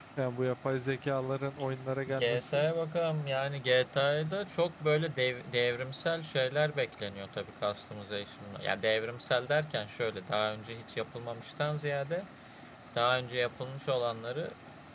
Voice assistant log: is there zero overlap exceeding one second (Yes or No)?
Yes